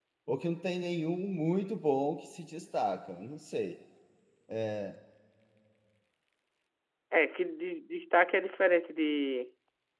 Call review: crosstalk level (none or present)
none